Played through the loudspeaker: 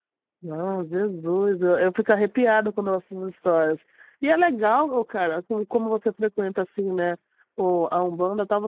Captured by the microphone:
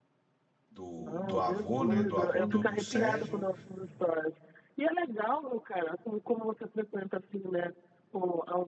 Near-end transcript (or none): do, do avô, né? Do avô do, do Sérgio